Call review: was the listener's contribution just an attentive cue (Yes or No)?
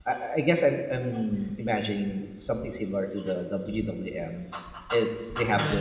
Yes